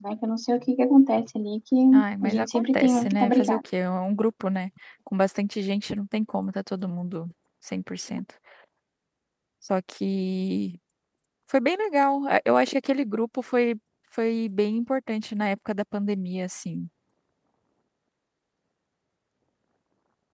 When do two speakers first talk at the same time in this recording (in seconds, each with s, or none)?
2.2 s